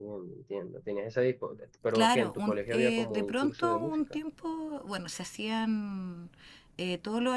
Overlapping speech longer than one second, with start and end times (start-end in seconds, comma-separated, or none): 1.9-4.0